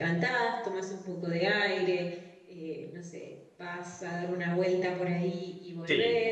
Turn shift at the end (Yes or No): No